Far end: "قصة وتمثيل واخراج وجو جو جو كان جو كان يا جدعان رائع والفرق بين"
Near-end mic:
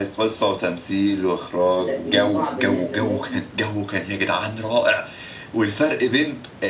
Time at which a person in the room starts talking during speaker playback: 1.8 s

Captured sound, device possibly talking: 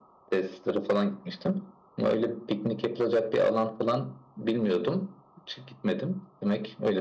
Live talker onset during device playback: none

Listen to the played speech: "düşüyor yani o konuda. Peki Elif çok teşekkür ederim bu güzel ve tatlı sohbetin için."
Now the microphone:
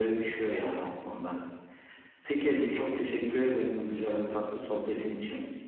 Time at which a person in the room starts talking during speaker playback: none

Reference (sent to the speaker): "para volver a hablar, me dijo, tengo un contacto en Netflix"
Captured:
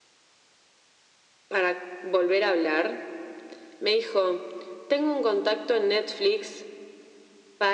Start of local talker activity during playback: none

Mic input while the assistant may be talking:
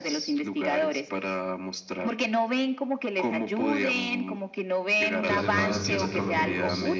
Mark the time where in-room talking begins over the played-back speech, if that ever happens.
5.2 s

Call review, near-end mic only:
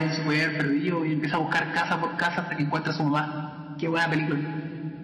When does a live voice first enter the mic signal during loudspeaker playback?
none

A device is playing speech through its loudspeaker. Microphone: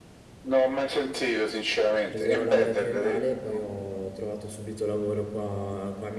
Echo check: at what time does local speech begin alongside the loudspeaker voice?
2.0 s

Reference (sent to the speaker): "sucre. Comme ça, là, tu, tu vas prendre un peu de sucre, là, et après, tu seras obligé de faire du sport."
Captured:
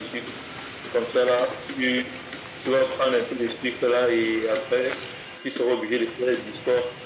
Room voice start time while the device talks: none

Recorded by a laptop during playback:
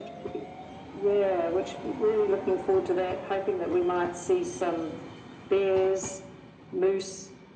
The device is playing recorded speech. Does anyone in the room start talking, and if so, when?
none

